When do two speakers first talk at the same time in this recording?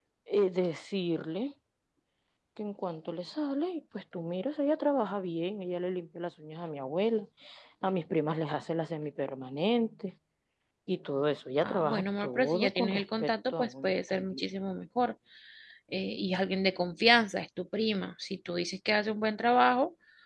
11.6 s

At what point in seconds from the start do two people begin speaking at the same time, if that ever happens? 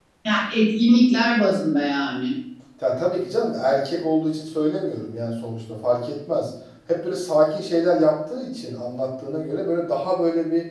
none

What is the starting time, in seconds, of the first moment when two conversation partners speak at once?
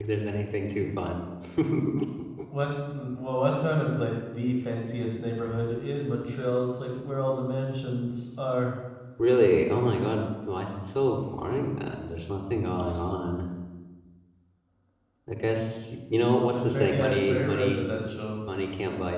16.5 s

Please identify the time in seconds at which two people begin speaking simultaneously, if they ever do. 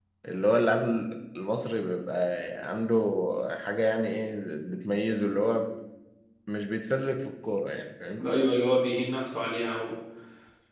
none

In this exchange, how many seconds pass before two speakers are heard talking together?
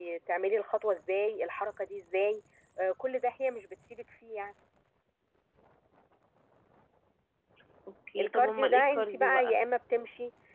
8.2 s

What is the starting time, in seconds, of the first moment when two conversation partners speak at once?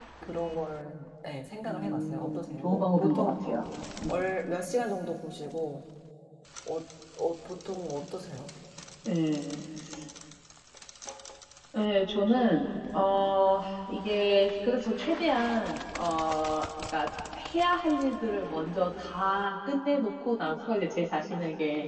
1.7 s

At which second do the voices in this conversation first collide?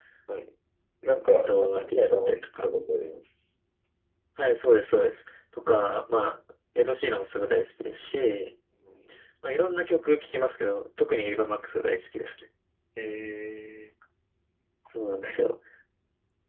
1.4 s

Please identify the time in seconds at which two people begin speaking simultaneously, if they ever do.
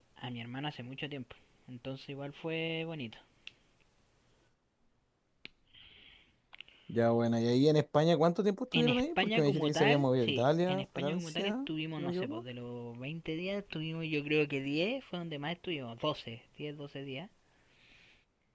8.7 s

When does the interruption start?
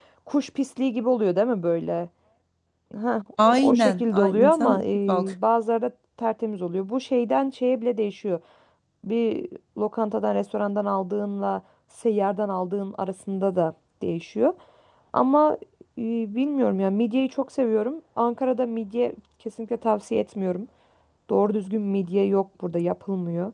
3.5 s

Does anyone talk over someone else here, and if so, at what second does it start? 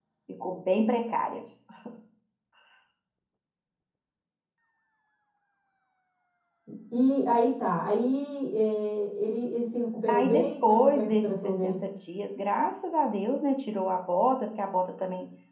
10.1 s

